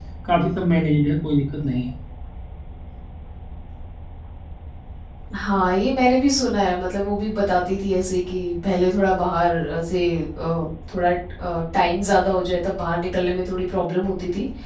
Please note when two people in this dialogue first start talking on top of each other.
none

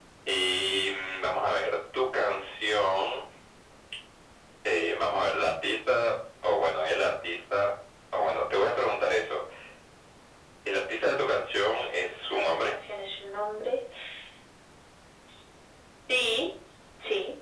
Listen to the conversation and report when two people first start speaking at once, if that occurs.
11.6 s

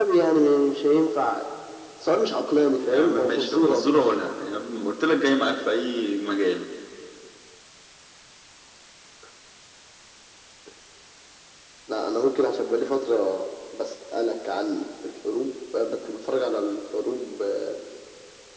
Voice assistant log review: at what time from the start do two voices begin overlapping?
2.8 s

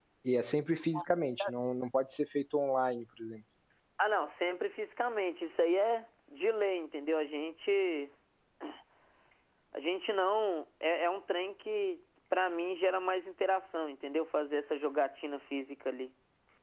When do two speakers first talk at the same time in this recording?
none

